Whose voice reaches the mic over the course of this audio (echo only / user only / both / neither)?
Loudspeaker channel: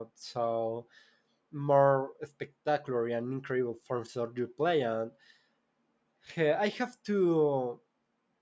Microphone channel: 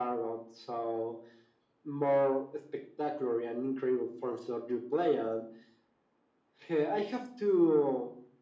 echo only